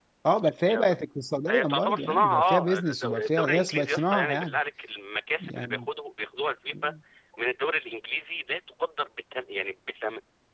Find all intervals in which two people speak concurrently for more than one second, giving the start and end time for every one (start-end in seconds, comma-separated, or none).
1.5-4.6